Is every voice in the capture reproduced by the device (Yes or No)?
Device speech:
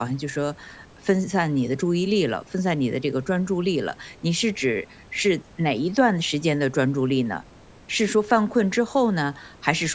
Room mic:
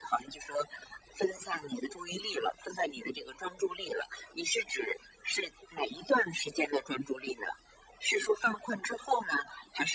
Yes